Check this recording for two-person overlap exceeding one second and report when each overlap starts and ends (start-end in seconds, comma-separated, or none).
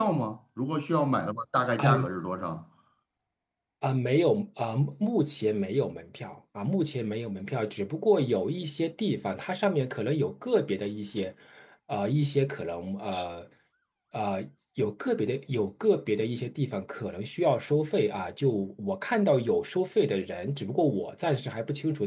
none